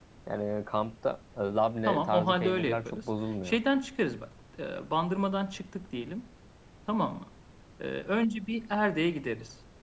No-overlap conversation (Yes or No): No